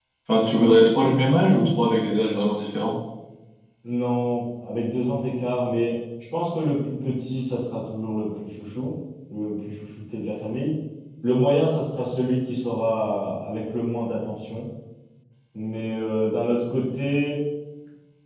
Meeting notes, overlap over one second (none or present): none